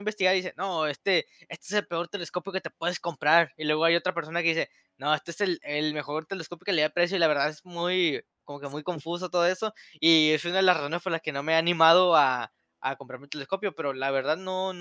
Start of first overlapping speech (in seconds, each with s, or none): none